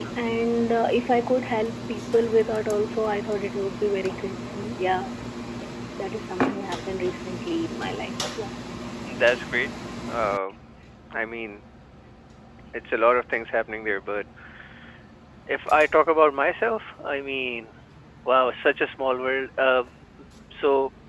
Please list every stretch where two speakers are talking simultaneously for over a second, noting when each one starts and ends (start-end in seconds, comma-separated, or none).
none